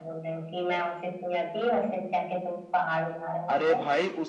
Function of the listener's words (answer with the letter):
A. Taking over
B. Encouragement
A